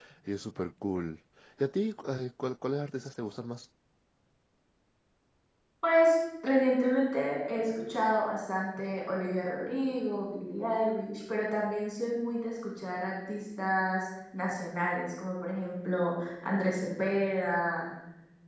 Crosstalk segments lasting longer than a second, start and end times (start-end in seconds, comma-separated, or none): none